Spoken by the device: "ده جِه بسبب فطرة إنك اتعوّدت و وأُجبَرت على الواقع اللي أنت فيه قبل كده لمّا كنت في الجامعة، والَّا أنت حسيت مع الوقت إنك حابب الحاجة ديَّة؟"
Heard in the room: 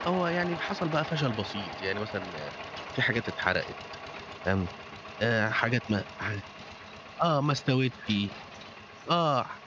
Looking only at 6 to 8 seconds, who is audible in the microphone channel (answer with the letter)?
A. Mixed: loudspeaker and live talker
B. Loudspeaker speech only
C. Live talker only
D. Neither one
C